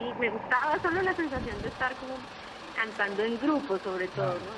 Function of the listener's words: listening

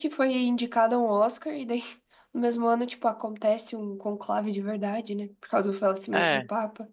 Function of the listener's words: listening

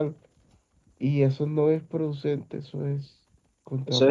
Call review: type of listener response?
taking over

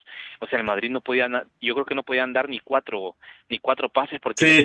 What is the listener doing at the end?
taking over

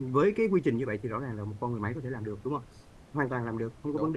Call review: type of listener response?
listening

